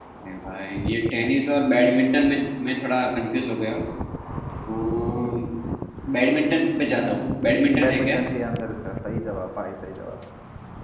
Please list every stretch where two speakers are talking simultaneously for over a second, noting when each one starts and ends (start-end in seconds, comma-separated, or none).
6.9-8.2